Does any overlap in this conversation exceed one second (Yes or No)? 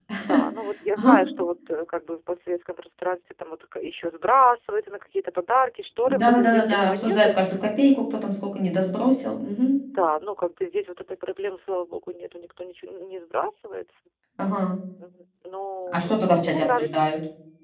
Yes